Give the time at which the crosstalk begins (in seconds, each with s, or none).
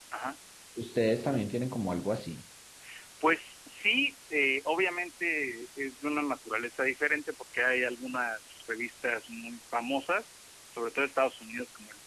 none